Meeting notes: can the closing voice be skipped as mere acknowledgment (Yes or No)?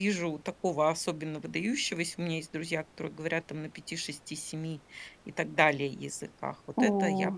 No